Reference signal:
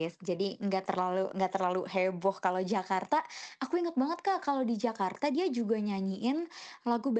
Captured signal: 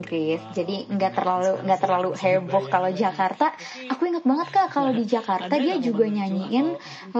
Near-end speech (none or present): present